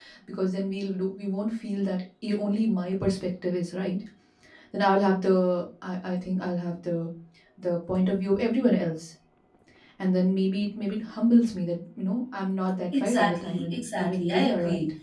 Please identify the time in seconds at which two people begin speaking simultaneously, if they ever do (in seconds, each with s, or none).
12.9 s